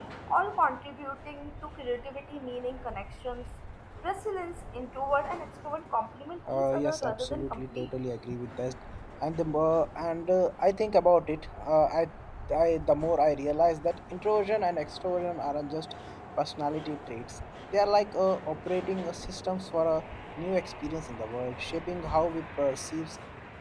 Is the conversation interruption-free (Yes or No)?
No